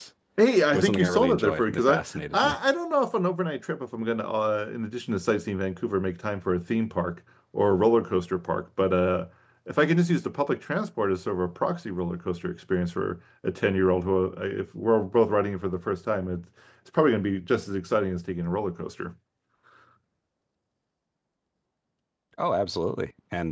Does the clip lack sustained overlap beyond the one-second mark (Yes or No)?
No